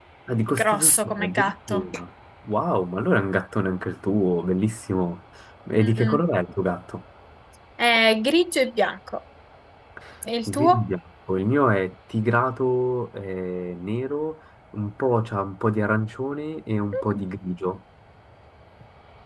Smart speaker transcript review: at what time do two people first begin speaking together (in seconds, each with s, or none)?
0.6 s